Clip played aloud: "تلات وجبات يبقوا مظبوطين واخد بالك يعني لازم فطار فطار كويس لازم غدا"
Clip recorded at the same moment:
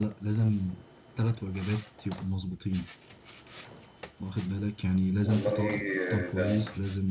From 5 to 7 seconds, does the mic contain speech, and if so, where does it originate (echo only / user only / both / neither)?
both